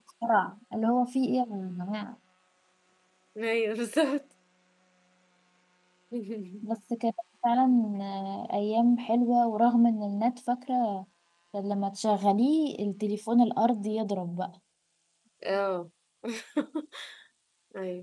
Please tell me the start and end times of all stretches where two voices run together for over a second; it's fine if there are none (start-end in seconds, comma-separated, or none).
none